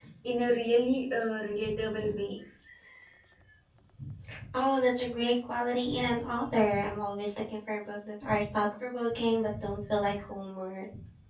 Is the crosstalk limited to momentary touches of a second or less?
Yes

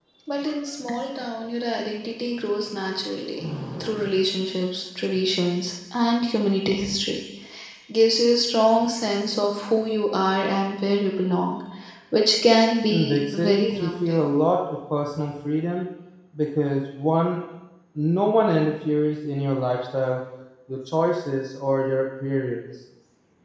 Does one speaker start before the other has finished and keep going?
Yes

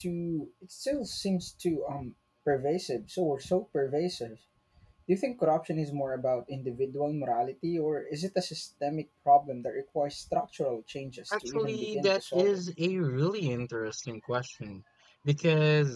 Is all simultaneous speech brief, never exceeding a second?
No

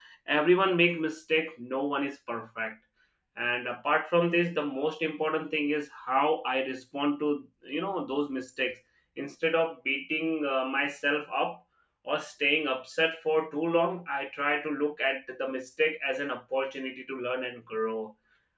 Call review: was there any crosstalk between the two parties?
No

